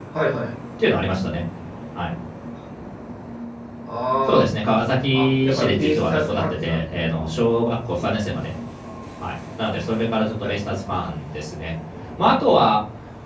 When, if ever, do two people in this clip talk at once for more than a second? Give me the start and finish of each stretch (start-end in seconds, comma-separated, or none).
5.1-6.8